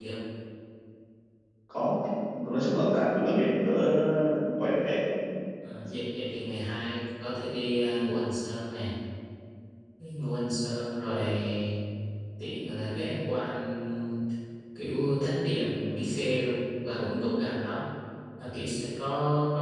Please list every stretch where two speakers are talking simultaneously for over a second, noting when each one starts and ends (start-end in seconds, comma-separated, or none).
none